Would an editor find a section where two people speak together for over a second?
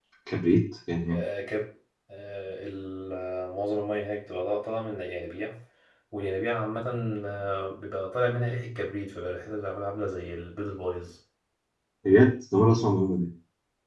No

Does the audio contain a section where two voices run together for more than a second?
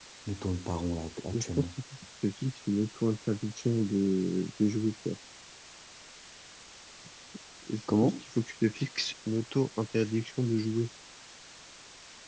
No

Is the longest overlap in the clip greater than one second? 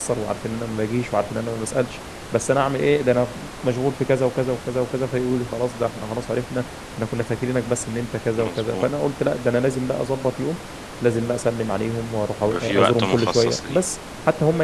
Yes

